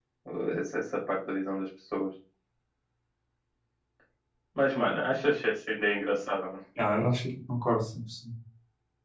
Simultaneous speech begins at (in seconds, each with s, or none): none